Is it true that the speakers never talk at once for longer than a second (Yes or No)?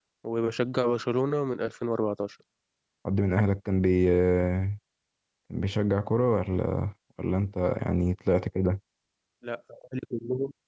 Yes